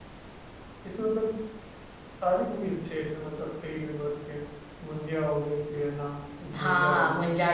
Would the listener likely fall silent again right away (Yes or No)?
No